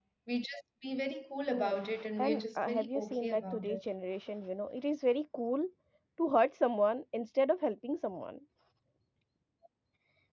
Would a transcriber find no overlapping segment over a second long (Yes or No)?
No